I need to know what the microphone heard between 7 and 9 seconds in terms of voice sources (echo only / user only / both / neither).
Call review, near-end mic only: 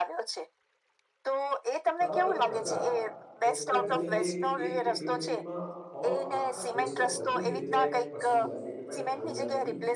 both